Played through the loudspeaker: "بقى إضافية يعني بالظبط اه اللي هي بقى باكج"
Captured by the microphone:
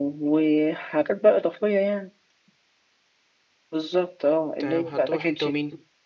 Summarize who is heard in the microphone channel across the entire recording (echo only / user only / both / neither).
both